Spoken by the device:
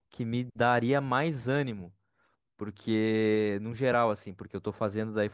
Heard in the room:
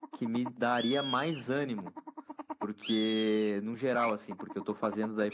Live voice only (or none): none